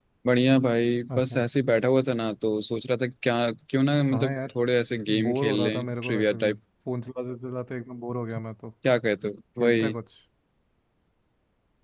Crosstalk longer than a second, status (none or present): present